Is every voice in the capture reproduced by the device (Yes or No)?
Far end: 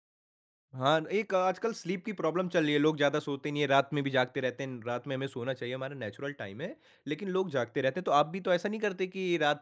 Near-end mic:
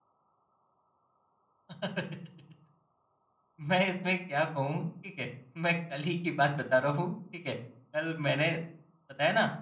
No